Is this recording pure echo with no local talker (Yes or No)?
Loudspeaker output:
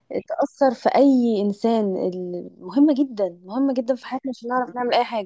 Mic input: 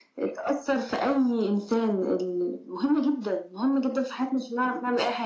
Yes